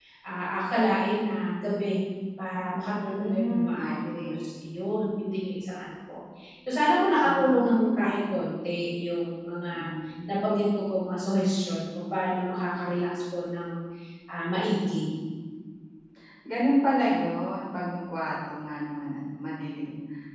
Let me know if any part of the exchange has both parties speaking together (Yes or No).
Yes